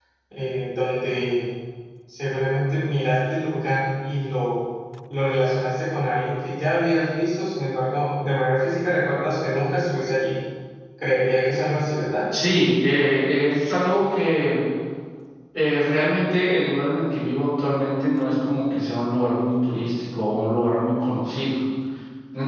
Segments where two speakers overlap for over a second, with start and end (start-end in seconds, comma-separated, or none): none